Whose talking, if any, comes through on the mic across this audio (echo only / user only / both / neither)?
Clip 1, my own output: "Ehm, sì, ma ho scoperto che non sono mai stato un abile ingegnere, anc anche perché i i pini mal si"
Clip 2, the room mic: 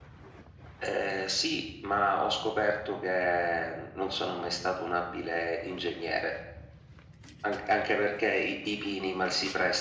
echo only